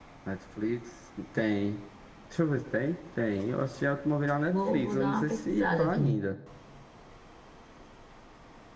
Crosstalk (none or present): present